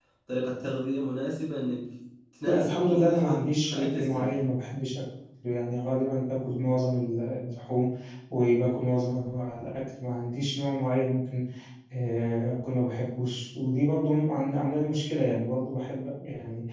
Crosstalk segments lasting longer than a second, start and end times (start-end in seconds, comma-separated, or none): 2.4-4.3